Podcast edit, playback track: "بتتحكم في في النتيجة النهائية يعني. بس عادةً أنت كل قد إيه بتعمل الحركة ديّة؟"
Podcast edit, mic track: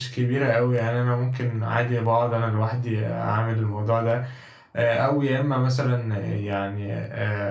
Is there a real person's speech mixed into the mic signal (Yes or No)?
Yes